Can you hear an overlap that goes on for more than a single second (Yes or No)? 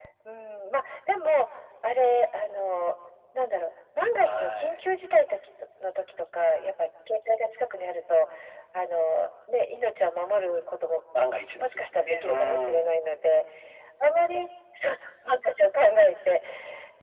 Yes